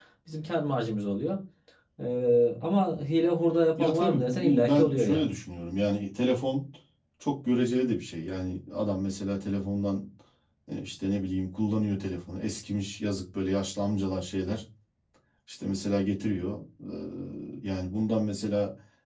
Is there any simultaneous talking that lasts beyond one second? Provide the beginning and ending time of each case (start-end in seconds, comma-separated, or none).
3.8-5.3